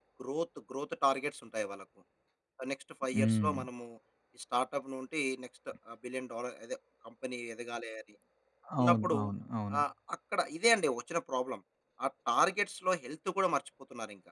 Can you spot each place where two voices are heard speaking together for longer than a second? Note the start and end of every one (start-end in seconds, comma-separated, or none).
none